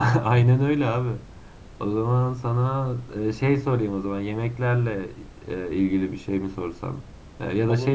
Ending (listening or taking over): listening